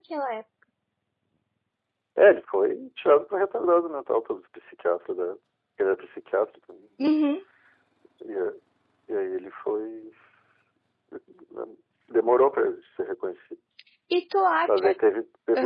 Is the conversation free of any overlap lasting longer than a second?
Yes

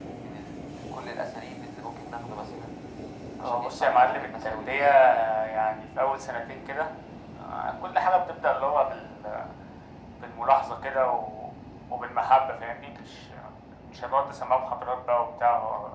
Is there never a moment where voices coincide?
No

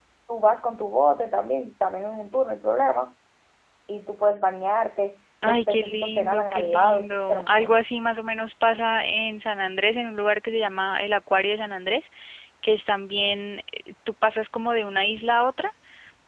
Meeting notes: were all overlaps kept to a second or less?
No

